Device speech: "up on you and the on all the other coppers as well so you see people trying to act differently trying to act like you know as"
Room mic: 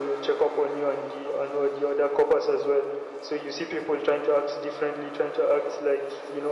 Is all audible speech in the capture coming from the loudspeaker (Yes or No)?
Yes